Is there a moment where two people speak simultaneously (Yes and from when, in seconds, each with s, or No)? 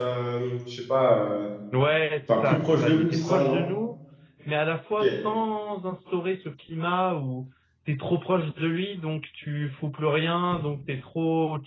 Yes, from 2.3 s